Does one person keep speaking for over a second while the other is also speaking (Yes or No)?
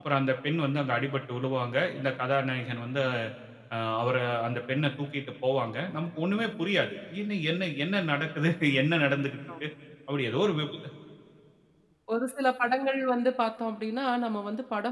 No